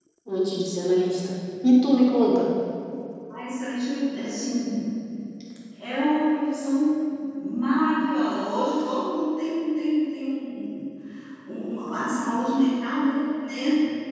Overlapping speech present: No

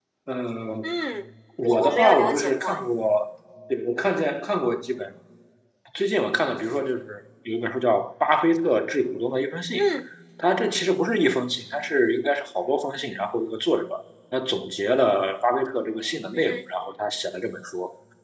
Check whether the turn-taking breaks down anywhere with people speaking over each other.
Yes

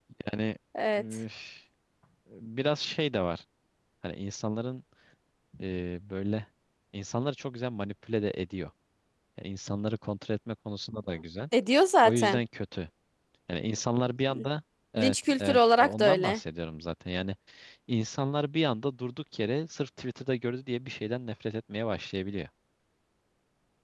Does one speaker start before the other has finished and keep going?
Yes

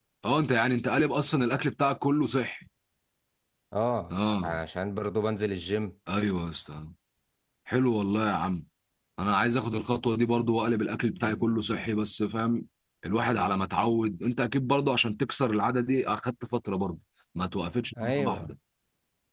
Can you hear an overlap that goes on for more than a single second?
No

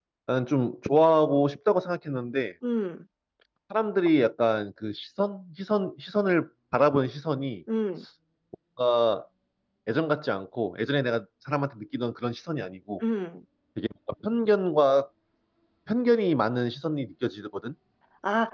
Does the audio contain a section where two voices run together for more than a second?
No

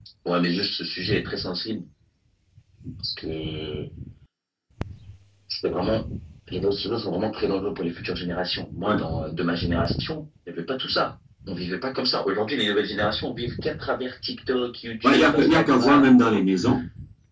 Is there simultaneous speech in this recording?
Yes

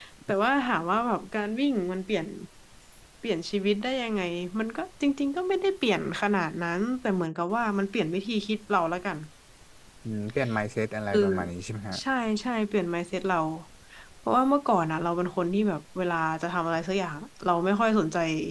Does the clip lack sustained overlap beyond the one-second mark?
Yes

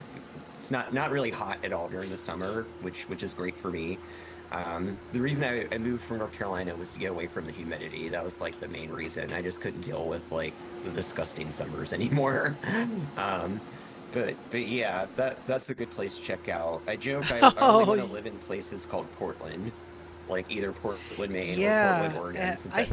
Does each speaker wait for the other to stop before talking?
No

